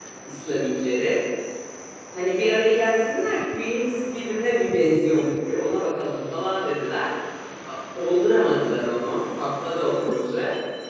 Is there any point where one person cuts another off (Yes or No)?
No